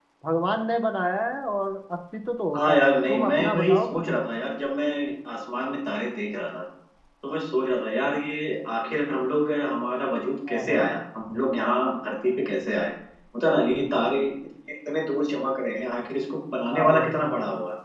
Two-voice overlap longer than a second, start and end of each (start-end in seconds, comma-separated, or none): 2.5-4.0